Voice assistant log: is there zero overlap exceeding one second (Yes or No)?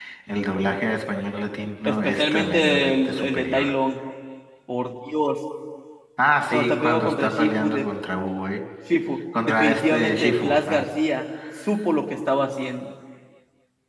No